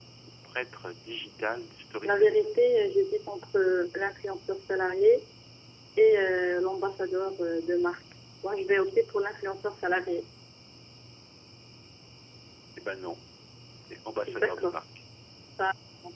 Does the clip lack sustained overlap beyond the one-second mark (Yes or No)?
Yes